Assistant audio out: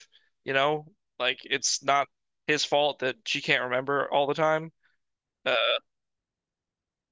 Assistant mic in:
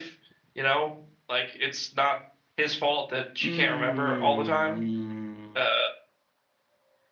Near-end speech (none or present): present